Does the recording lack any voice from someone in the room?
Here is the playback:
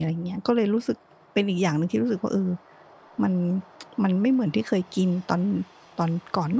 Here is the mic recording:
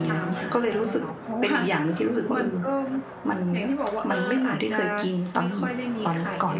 No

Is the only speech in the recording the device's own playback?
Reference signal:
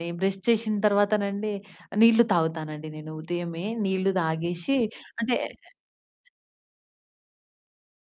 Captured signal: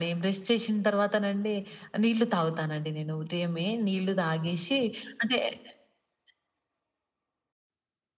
Yes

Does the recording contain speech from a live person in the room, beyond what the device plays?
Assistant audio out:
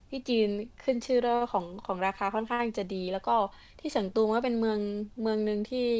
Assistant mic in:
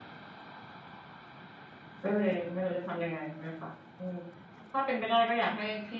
Yes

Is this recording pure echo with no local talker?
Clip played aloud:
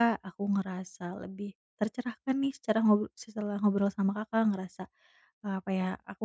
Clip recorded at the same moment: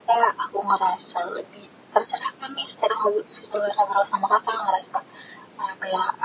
Yes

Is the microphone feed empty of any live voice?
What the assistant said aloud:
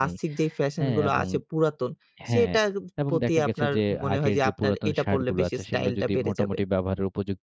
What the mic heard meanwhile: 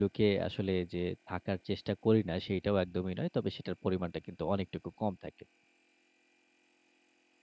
No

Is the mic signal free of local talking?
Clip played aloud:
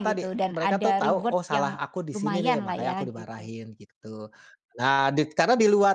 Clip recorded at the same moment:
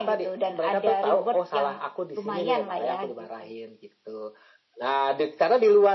Yes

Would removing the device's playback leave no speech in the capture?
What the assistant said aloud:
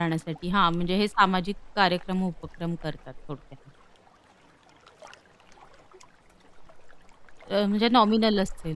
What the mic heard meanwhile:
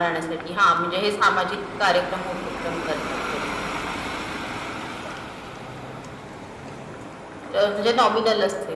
Yes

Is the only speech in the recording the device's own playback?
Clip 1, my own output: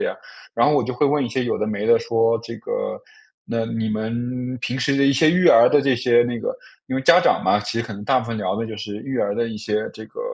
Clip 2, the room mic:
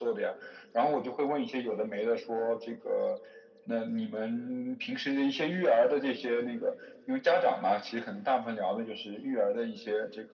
Yes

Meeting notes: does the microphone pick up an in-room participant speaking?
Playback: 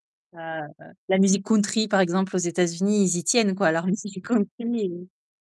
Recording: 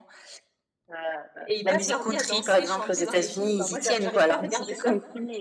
Yes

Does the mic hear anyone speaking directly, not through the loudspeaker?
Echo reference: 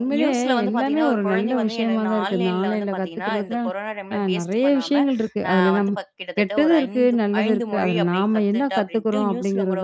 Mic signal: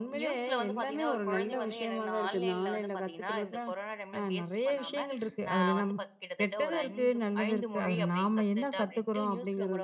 No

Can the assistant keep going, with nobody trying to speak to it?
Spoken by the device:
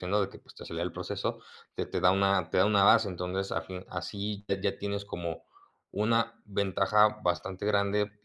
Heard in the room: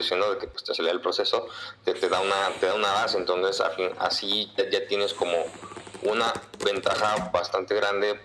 Yes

